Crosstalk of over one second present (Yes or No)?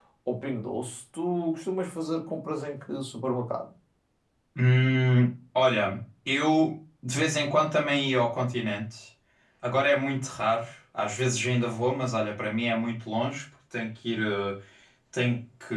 No